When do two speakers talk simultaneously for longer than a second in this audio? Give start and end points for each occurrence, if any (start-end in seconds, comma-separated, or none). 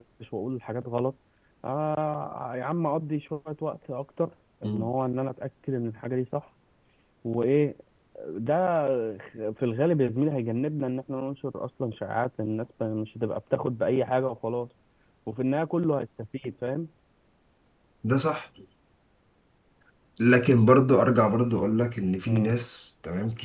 none